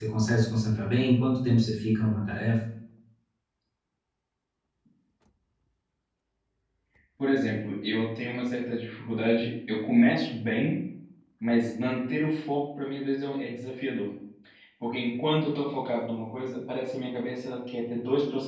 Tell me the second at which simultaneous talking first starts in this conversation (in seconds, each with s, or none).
none